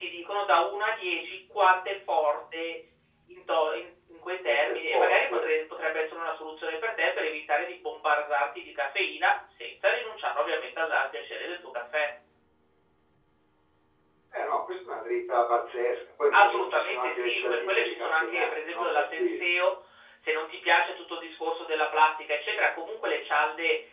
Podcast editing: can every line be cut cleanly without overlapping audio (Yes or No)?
No